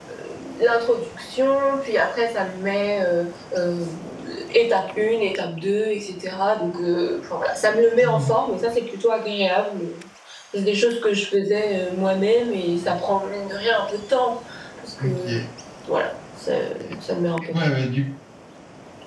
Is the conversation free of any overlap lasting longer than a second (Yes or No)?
Yes